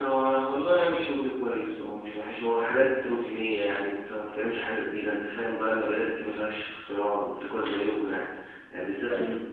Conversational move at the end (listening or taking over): listening